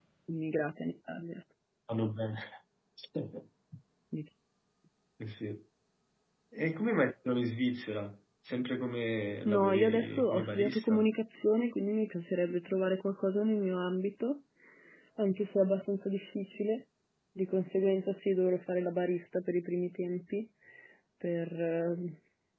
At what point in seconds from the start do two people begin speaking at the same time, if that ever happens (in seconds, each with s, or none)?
9.4 s